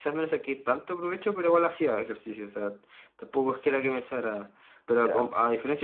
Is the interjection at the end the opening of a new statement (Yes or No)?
No